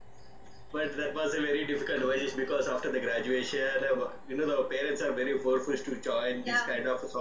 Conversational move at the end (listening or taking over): listening